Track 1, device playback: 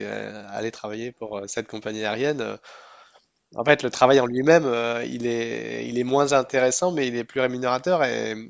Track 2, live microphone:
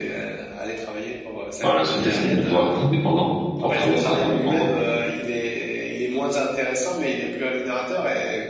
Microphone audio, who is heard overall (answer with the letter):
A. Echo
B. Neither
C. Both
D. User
C